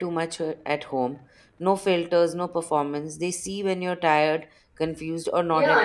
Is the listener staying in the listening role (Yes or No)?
No